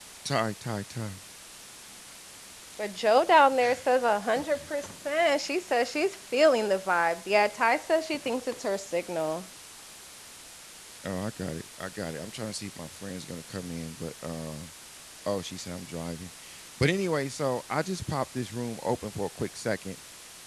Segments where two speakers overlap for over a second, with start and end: none

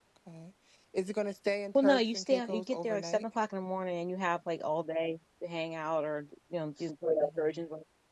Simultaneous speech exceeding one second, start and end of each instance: 1.8-3.2

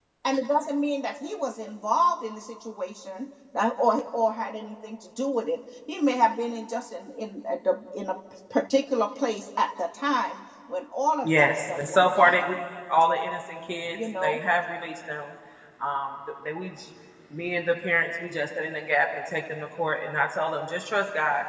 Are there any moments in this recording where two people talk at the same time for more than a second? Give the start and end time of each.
11.2-12.5

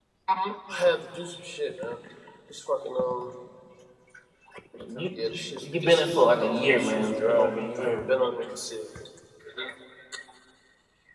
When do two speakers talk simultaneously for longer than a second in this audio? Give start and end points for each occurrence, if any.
5.6-8.0

